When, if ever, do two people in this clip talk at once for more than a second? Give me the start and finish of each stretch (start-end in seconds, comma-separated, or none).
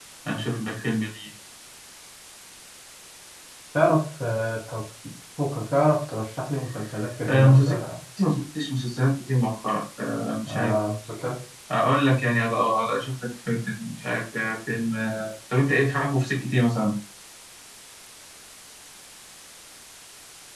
none